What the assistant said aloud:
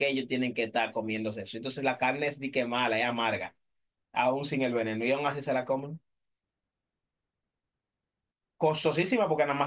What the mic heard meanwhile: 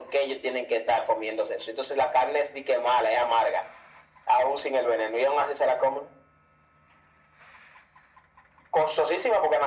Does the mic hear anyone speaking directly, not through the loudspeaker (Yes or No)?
No